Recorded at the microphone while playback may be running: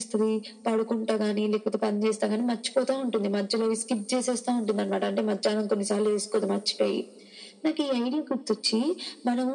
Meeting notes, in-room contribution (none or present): none